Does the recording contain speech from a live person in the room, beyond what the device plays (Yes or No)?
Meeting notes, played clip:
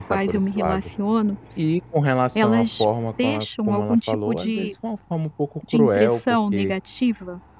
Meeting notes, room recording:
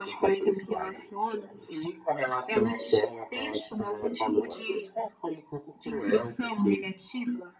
No